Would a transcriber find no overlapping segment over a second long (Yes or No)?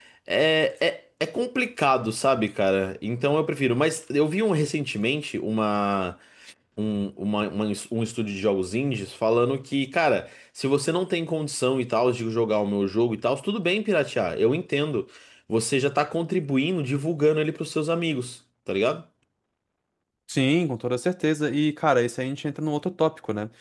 Yes